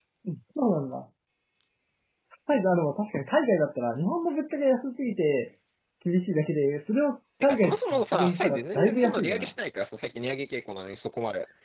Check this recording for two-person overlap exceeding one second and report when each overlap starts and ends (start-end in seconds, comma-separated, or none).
7.4-9.5